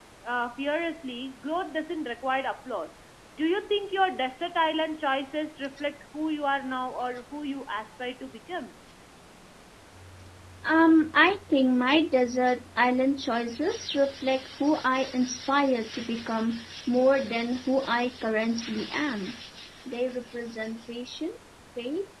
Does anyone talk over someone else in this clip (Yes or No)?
No